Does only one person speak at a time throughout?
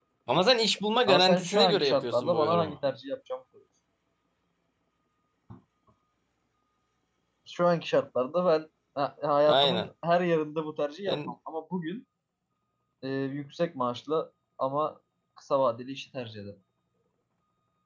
No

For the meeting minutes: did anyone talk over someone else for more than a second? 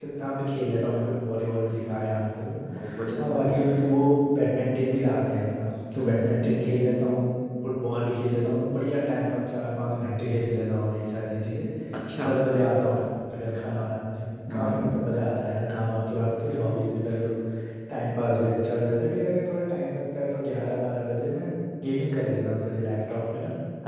No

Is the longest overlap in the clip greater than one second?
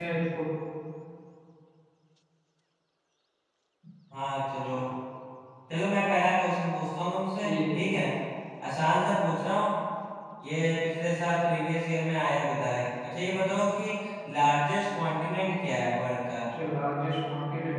No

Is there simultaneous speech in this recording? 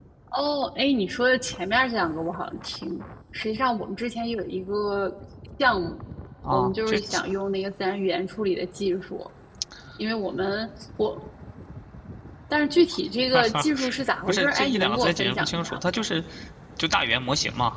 Yes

